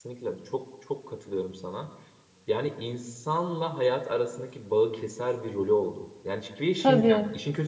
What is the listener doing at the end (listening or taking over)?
listening